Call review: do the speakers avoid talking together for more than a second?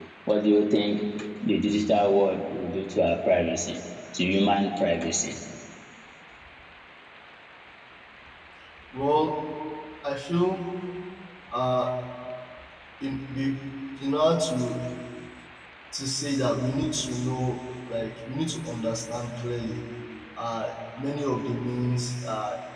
Yes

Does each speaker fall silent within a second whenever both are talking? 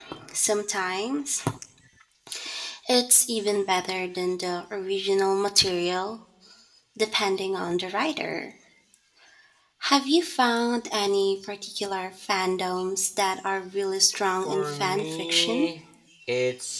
No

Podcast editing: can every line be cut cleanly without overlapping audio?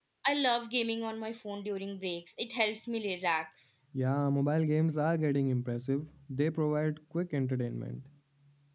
Yes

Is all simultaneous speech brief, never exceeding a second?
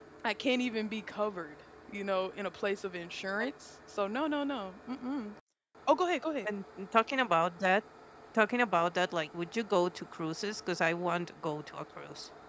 Yes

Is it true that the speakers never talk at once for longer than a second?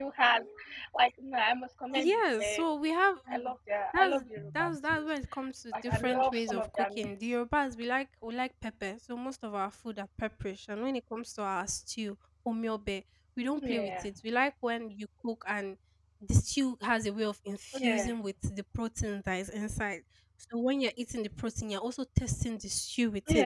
No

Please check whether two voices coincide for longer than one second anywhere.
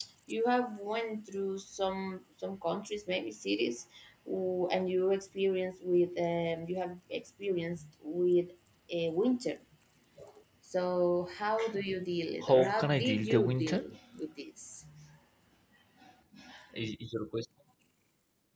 Yes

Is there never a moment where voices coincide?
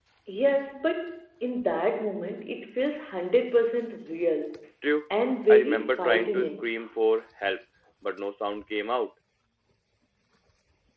No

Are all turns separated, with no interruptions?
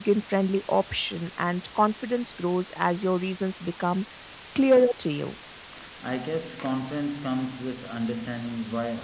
Yes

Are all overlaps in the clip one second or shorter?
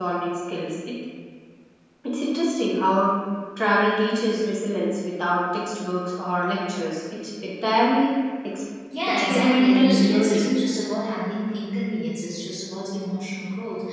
No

